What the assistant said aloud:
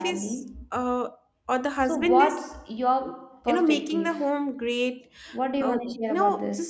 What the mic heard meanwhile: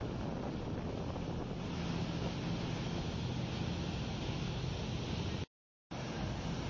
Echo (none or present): none